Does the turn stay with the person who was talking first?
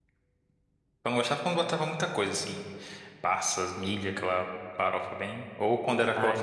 Yes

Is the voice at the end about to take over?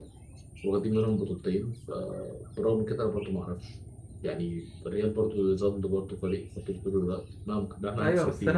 Yes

